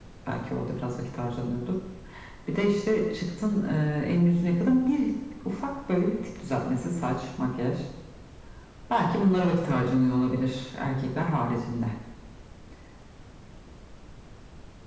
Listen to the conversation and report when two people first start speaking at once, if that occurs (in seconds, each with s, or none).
none